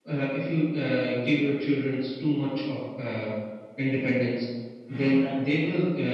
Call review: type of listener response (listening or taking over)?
listening